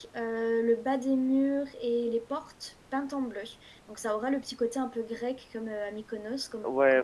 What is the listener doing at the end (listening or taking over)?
taking over